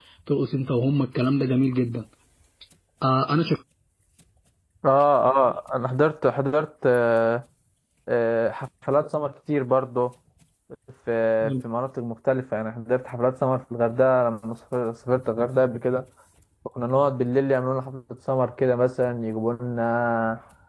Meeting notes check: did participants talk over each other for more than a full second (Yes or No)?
No